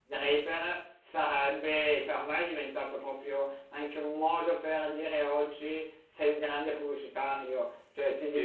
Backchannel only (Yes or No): Yes